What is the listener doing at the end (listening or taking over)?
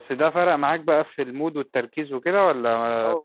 taking over